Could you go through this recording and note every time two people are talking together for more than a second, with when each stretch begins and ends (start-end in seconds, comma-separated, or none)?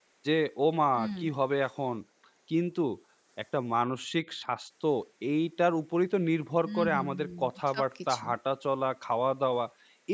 6.7-8.2